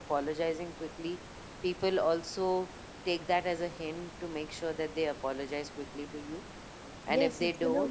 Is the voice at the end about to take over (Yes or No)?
Yes